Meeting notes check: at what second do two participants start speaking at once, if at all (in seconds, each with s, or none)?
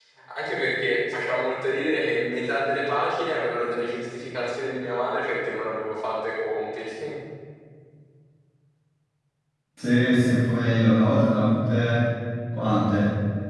none